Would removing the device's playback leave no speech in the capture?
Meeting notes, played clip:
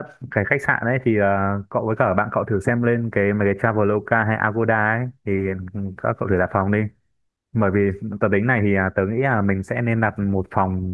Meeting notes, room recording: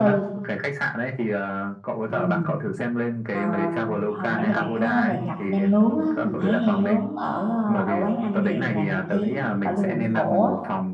No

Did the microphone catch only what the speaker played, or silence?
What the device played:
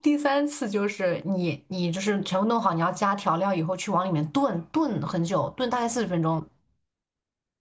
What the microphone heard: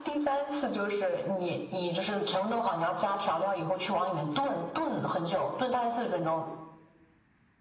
Yes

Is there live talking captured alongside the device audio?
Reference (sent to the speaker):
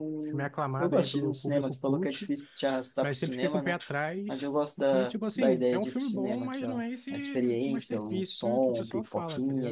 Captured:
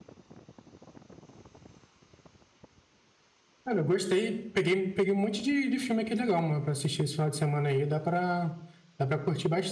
Yes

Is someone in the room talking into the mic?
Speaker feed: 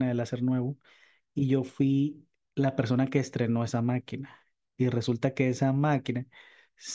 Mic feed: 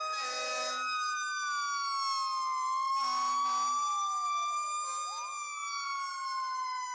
No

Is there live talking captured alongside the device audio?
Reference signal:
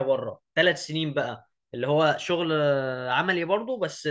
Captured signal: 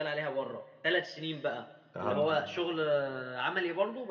Yes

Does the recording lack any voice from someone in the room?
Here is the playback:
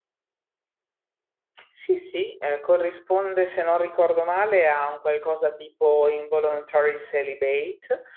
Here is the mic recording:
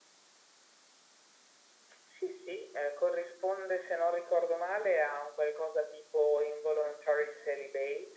Yes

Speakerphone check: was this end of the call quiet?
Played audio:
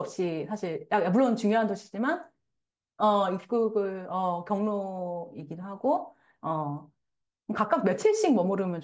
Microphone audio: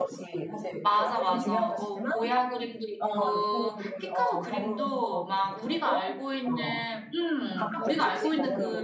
No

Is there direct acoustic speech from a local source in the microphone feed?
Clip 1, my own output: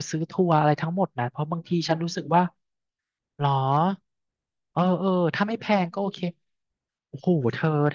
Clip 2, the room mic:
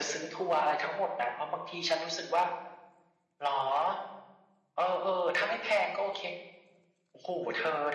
No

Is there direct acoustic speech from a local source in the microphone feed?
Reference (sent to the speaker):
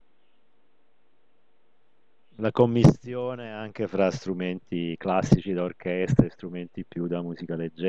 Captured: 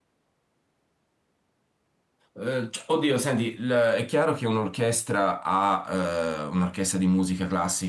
Yes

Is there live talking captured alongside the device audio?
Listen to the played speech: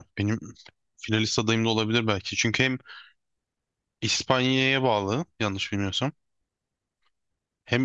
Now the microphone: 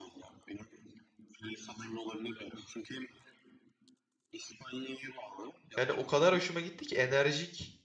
Yes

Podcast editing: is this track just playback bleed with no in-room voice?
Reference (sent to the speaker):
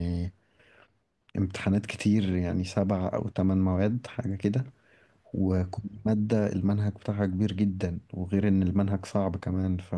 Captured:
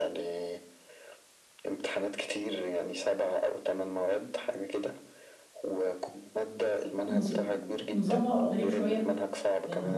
No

